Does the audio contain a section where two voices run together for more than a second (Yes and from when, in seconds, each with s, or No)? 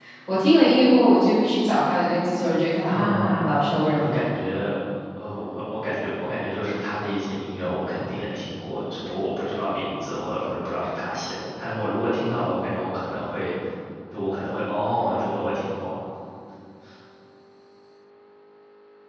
No